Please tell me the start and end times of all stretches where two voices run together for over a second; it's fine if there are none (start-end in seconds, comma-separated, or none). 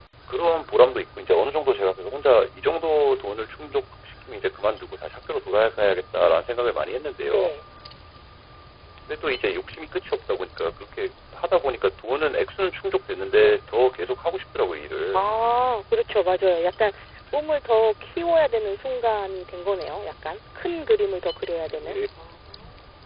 none